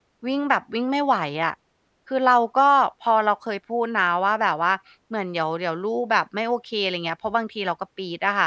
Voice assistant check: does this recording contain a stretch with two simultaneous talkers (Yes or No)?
No